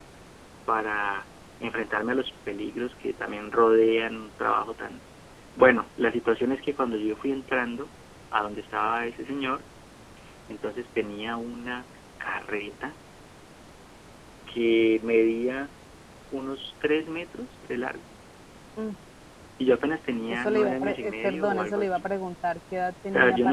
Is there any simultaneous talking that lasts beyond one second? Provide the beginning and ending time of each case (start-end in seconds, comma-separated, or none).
20.3-22.1